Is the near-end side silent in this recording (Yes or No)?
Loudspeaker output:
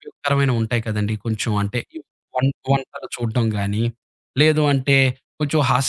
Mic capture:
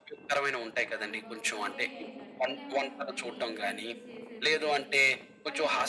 No